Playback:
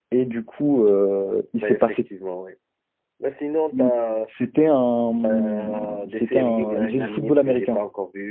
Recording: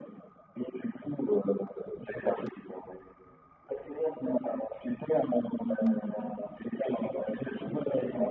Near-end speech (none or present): none